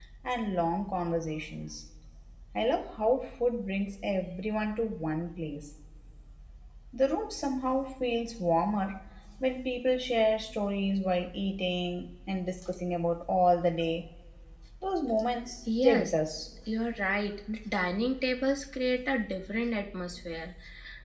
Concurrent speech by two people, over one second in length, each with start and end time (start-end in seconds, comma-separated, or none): none